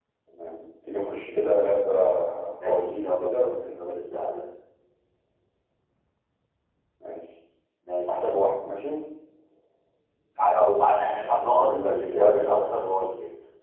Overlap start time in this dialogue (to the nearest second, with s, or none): 3 s